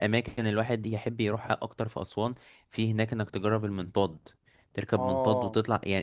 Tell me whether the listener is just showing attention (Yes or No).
Yes